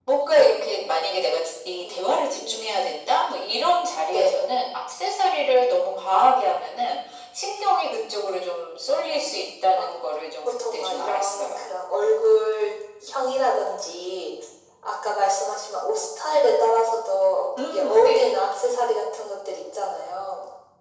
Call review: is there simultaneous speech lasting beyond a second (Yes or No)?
Yes